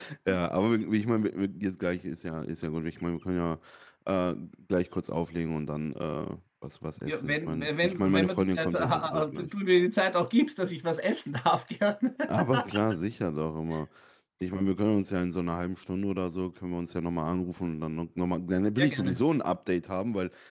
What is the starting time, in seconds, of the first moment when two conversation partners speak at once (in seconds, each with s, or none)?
7.1 s